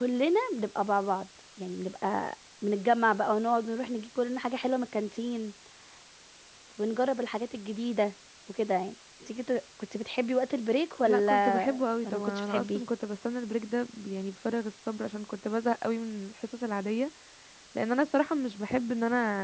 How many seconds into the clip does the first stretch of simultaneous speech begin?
11.1 s

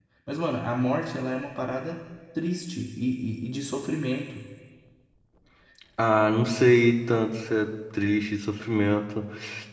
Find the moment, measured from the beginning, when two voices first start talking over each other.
none

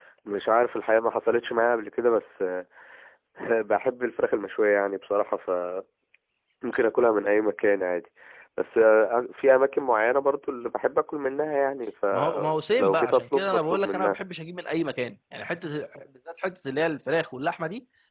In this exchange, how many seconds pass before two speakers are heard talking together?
12.1 s

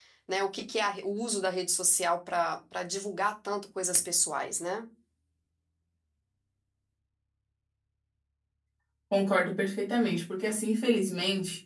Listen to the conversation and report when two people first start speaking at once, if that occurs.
none

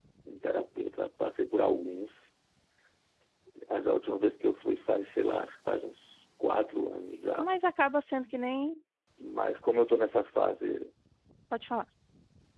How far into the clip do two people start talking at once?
none

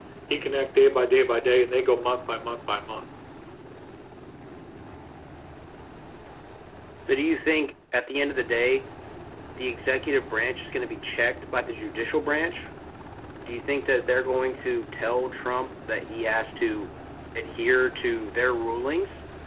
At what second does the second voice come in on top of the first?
none

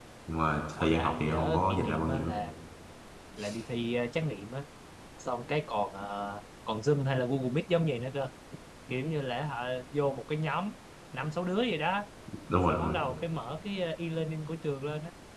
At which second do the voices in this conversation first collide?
0.8 s

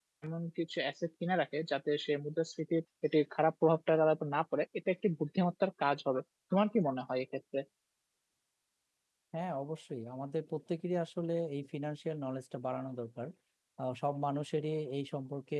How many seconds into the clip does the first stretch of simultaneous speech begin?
none

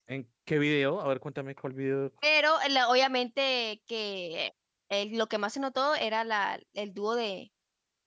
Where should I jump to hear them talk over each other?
none

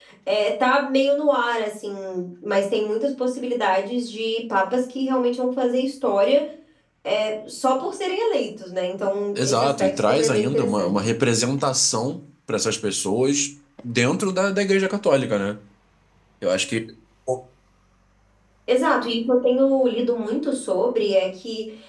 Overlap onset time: 9.4 s

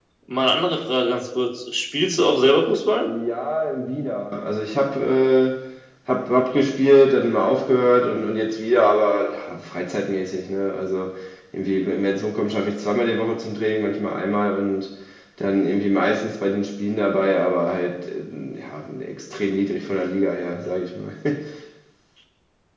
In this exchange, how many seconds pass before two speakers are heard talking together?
none

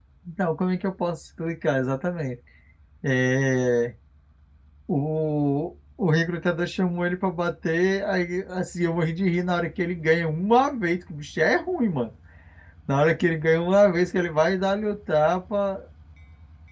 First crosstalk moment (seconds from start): none

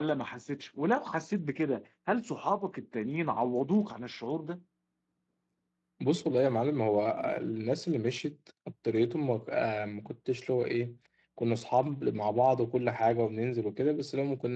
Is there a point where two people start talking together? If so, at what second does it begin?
none

